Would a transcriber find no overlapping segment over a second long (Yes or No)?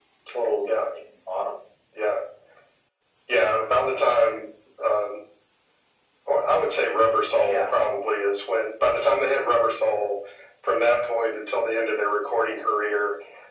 Yes